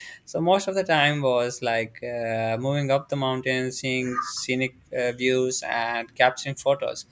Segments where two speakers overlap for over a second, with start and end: none

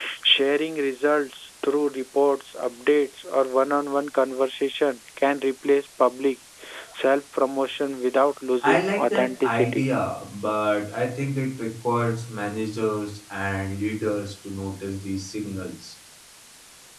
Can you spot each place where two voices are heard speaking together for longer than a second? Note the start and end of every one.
8.6-9.9

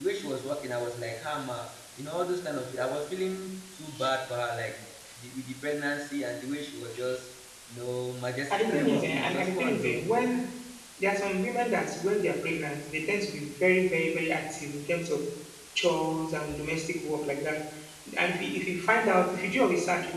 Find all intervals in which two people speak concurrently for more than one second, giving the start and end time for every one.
8.5-10.1

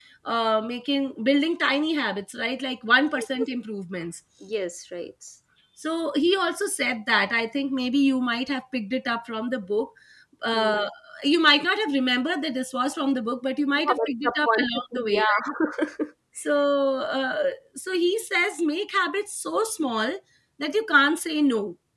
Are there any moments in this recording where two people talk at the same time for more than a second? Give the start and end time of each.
13.8-15.4

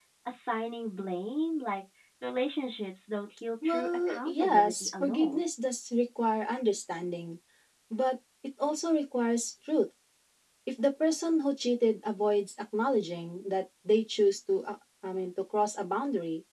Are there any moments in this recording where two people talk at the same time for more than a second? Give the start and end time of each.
3.6-5.4

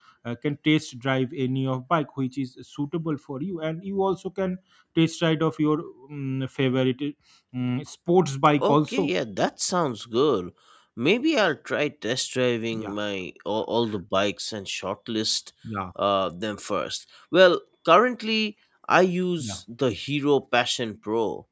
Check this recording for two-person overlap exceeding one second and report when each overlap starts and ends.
none

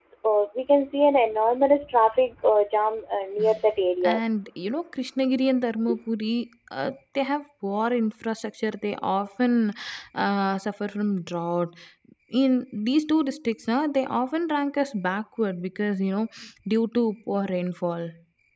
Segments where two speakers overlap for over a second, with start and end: none

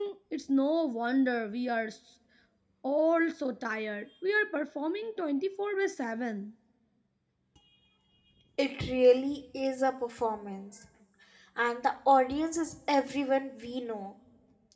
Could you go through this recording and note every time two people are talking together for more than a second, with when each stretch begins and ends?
none

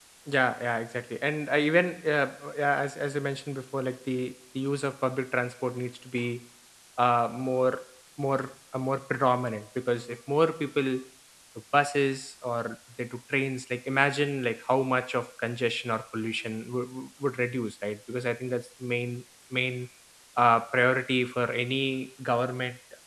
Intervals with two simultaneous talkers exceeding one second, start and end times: none

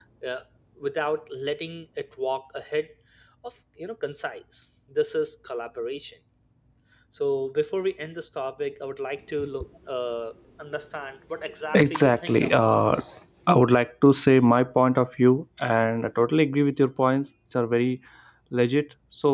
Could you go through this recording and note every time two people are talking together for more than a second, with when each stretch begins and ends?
11.7-13.0

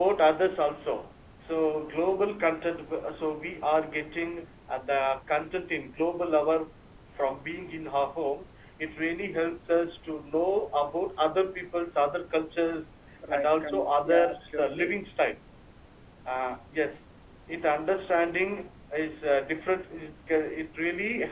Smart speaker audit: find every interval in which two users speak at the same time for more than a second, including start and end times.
13.3-15.0

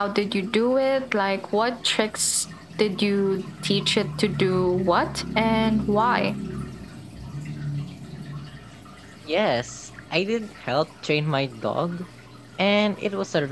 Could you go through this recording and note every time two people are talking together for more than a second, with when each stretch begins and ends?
none

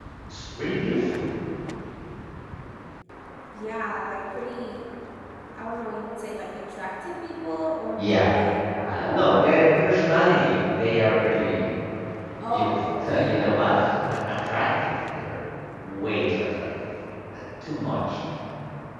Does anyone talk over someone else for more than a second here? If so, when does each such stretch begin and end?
12.5-13.8

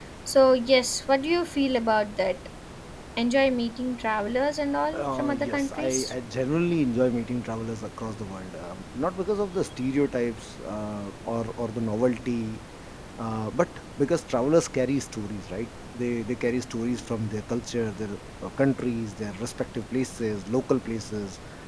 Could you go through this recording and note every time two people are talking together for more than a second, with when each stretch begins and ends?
4.9-6.1

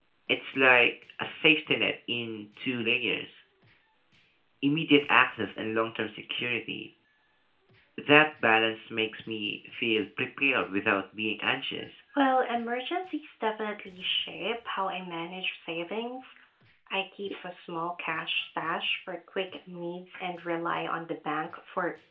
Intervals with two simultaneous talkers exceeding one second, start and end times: none

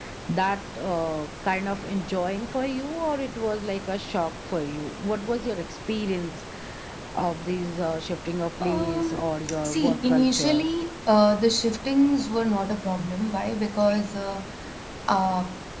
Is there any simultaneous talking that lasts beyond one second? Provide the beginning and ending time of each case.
8.6-10.6

